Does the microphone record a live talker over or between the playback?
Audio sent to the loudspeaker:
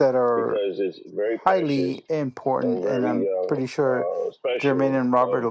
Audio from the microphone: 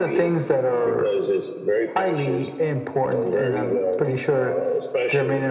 No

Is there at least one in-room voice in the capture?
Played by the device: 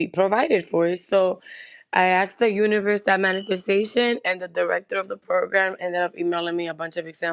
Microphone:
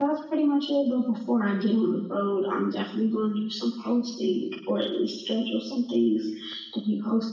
Yes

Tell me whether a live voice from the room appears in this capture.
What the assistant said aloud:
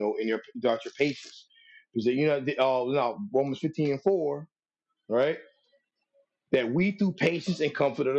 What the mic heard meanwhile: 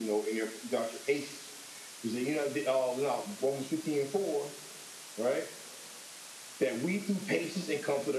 No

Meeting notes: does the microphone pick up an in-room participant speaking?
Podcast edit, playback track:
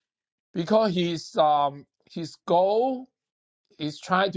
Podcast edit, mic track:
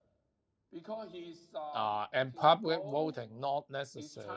Yes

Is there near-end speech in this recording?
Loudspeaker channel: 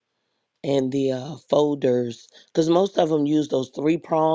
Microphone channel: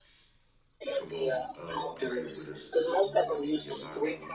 Yes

